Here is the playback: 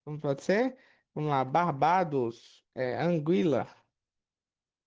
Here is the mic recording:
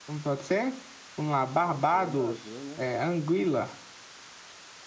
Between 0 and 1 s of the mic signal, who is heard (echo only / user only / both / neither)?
echo only